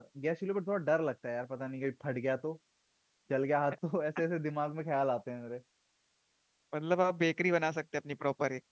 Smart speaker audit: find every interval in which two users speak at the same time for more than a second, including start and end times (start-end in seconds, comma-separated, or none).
none